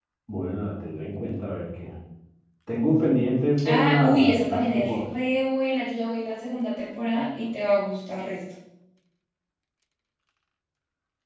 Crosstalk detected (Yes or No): Yes